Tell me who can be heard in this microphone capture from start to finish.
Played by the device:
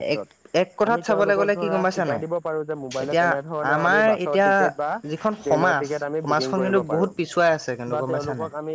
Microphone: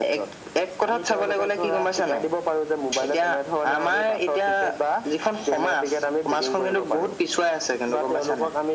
echo only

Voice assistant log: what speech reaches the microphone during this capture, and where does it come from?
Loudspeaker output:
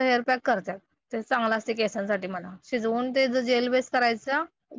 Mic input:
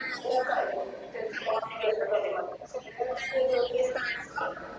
echo only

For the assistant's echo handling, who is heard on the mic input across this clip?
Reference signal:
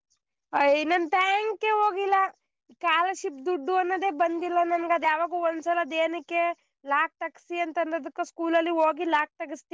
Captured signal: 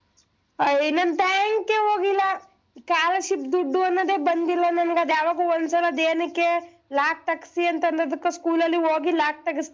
echo only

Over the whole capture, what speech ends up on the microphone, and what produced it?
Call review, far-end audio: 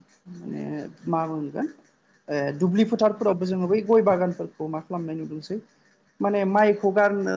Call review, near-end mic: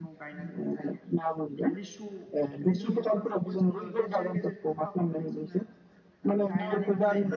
both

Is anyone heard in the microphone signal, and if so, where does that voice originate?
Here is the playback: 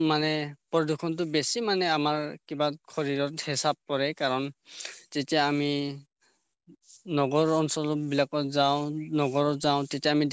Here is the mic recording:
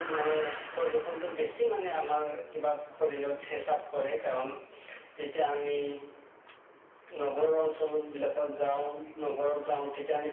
echo only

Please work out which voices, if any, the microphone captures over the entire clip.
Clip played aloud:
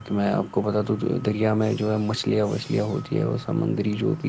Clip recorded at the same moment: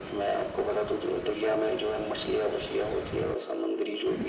echo only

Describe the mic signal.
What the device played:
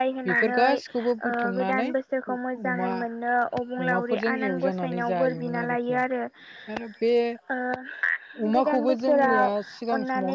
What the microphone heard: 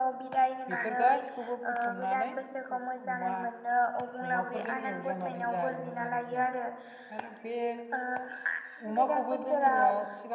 echo only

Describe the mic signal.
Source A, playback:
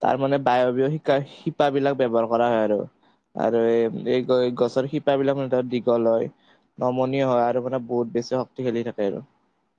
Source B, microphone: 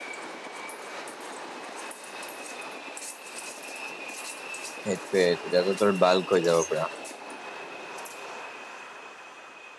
user only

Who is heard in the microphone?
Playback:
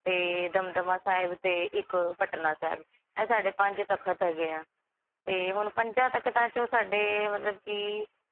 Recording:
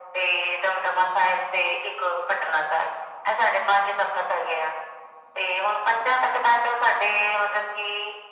echo only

